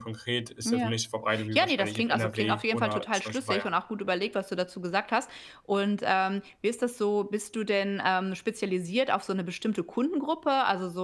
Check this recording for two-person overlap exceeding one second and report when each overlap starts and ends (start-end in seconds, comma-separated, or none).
1.5-3.7